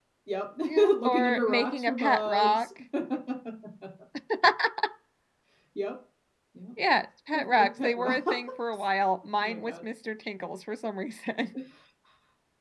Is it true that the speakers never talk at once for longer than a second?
No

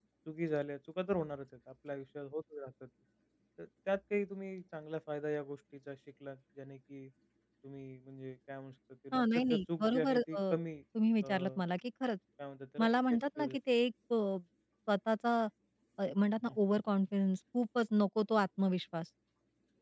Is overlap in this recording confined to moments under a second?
No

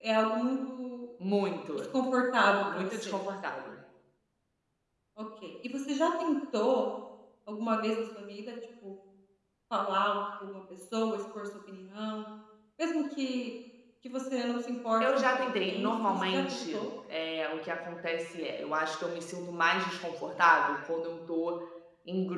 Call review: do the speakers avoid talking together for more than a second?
No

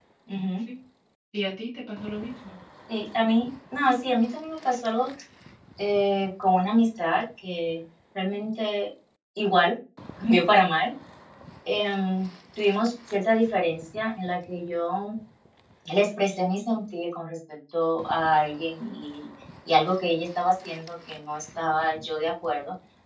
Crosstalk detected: No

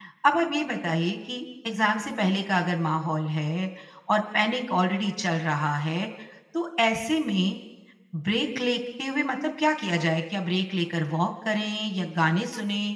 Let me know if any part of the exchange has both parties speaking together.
No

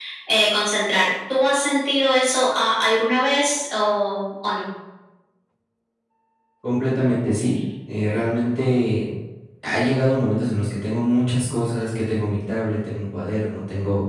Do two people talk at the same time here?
No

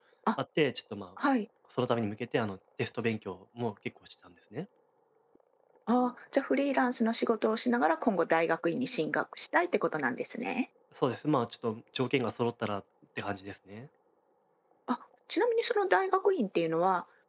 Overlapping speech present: No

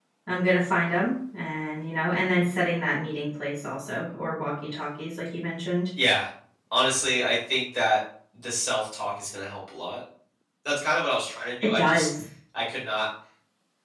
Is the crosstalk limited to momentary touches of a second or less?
Yes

